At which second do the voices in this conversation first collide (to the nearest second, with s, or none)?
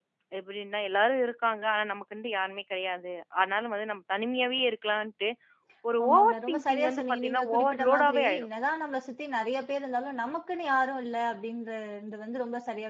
6 s